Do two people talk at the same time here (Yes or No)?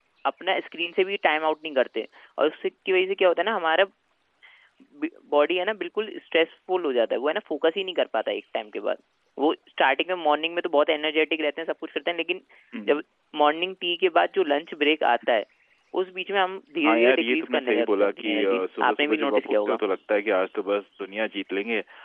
Yes